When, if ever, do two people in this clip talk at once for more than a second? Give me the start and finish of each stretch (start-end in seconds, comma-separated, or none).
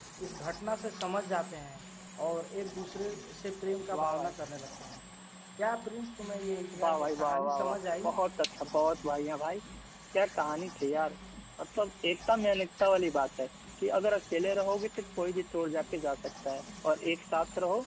6.8-8.1